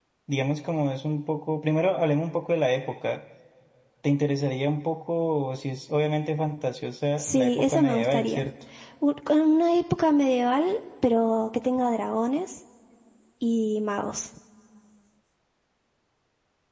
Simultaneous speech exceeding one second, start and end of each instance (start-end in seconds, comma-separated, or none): 7.2-8.5